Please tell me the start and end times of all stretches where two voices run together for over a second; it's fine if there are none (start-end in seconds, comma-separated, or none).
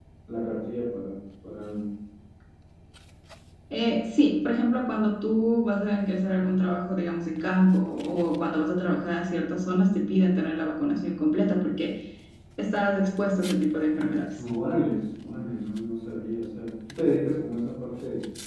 none